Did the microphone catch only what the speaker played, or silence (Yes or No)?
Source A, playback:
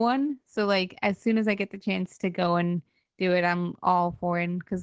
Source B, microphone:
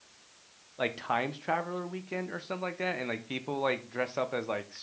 No